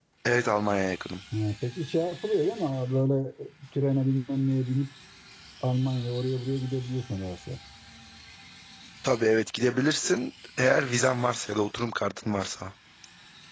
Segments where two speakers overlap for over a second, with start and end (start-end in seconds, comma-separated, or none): none